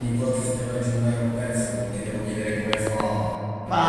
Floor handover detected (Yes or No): Yes